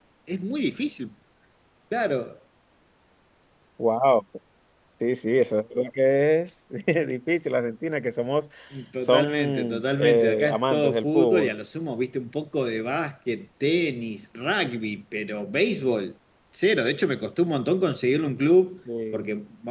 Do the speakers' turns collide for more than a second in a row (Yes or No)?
Yes